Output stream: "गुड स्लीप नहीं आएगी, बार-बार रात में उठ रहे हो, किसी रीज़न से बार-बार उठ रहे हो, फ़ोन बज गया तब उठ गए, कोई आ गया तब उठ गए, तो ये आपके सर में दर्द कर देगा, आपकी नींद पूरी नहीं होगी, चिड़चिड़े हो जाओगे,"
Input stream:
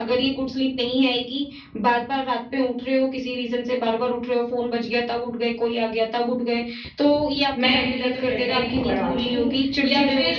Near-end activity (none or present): present